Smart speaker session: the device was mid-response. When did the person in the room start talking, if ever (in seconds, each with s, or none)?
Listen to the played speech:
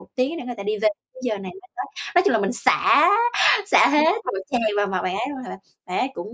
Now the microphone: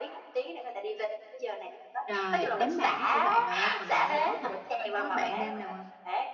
2.0 s